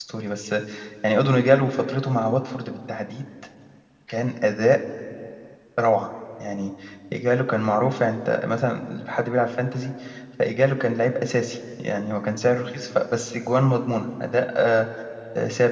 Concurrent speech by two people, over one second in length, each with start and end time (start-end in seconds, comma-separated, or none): none